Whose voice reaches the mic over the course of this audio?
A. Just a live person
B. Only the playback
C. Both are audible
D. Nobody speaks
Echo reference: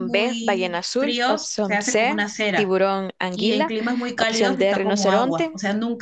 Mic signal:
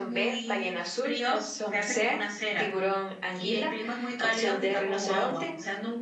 B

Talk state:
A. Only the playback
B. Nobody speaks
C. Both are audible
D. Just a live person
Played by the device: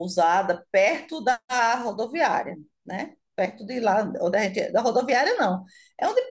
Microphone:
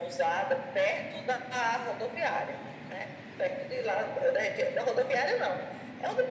A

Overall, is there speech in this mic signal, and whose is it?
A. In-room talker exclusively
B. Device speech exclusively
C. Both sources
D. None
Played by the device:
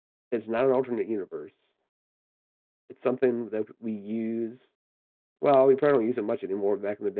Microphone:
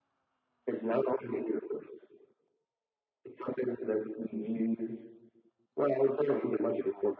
B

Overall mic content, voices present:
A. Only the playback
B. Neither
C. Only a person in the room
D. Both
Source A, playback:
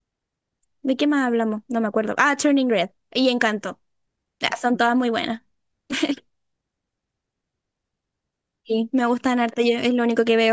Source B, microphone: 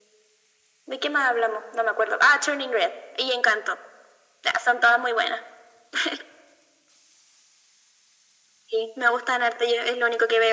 A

